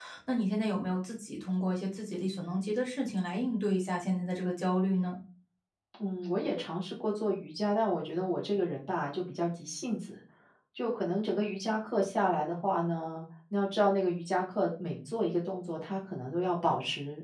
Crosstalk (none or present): none